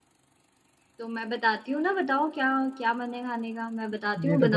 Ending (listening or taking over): taking over